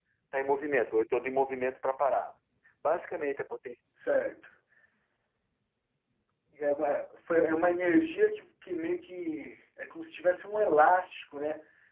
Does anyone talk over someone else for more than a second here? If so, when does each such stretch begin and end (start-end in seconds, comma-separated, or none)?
none